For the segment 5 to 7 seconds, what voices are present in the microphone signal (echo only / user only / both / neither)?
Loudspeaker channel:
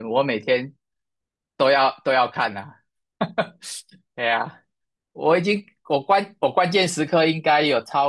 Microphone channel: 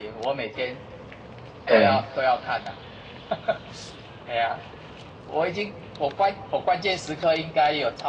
echo only